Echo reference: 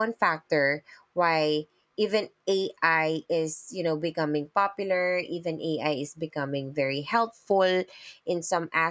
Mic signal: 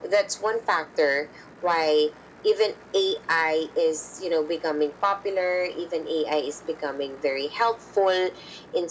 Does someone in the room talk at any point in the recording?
No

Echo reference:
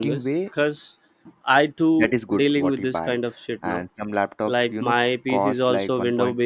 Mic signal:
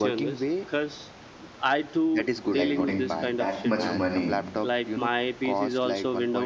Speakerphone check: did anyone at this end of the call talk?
Yes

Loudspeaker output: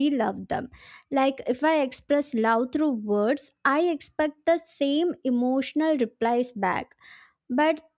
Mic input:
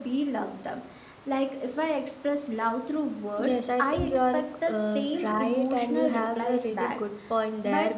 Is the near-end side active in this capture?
Yes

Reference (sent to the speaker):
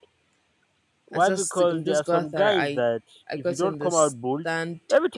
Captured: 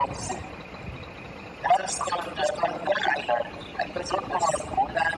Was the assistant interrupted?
No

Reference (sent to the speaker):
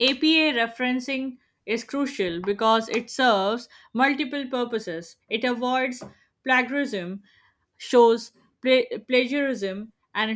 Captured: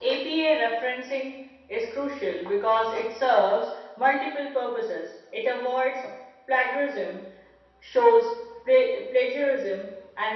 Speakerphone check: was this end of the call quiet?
Yes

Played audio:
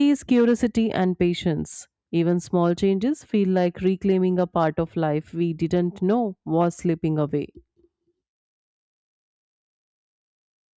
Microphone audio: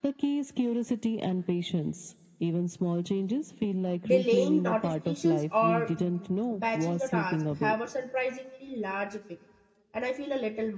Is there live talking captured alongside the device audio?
Yes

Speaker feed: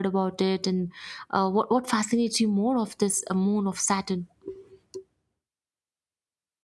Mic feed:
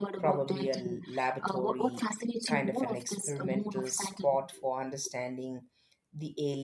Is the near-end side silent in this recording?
No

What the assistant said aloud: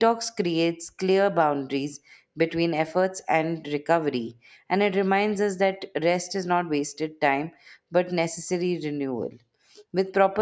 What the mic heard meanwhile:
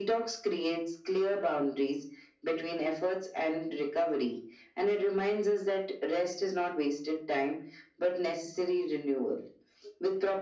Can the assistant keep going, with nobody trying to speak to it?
Yes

